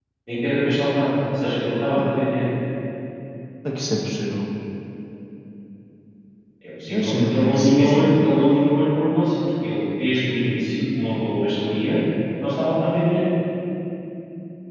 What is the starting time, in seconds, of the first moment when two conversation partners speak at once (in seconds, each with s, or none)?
6.9 s